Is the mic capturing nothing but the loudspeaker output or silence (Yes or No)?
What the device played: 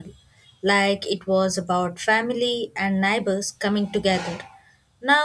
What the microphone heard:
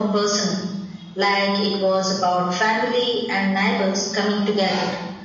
Yes